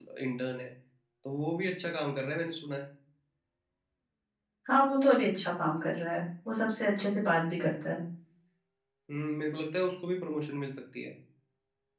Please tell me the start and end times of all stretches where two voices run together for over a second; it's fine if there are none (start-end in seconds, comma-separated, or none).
none